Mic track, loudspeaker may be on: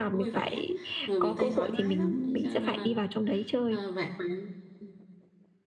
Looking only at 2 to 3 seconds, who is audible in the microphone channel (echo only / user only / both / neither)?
both